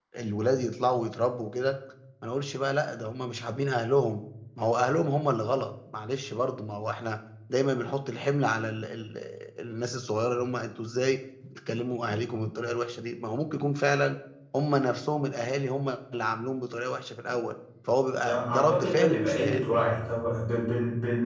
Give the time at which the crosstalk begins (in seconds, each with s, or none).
18.2 s